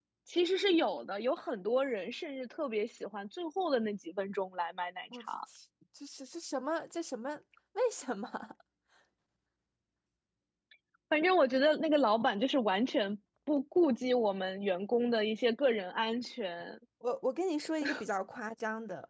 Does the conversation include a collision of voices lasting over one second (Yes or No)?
No